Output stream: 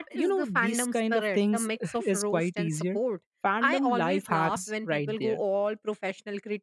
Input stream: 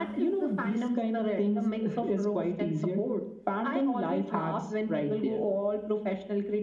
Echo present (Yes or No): Yes